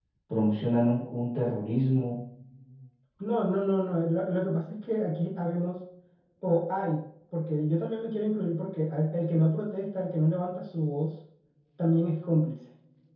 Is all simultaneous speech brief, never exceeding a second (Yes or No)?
Yes